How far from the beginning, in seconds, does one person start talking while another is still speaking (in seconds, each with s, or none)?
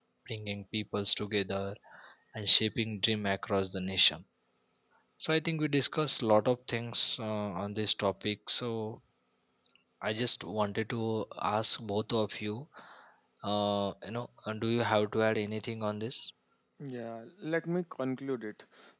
none